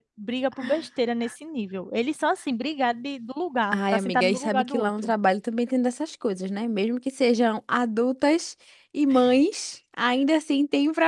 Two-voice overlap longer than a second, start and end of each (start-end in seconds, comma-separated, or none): 3.8-5.1